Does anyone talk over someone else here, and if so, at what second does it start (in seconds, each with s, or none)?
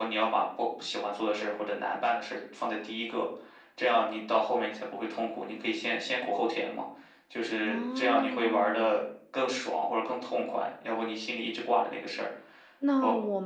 7.6 s